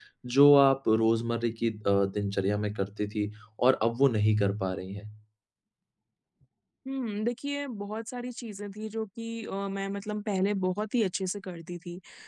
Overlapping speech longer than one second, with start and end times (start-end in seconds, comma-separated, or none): none